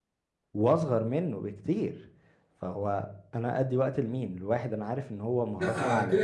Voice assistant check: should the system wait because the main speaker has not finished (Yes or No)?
No